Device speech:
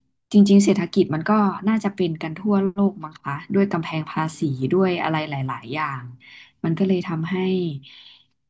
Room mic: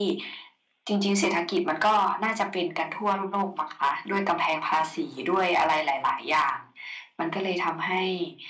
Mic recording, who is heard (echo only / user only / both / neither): echo only